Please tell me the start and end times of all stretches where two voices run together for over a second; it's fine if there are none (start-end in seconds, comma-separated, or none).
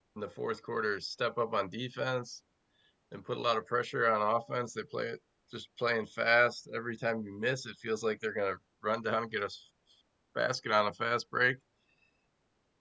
none